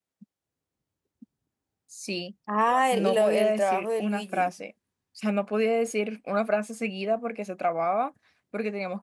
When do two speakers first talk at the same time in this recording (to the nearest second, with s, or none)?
3 s